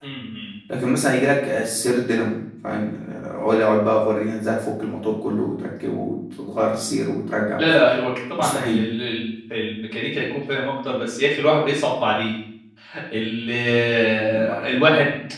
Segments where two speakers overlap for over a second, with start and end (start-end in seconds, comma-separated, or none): none